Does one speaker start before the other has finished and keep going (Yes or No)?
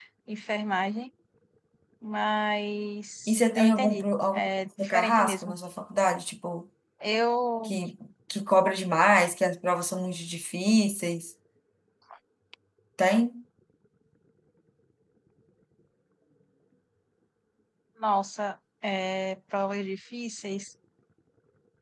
Yes